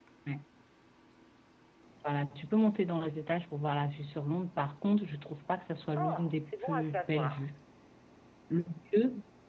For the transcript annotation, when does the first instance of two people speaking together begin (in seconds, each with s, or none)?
5.9 s